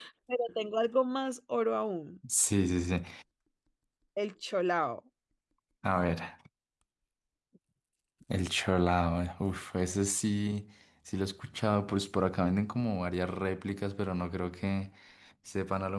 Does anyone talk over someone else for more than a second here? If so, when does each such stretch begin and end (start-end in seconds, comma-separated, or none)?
none